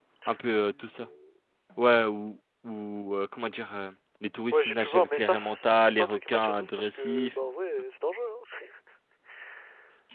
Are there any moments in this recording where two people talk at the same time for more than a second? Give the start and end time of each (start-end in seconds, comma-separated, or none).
4.5-7.3